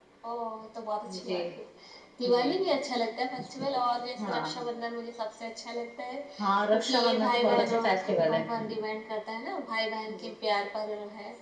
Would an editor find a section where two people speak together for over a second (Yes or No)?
Yes